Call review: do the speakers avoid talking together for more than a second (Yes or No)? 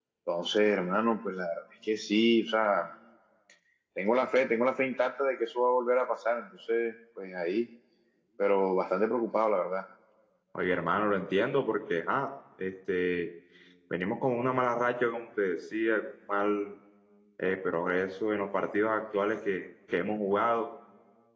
Yes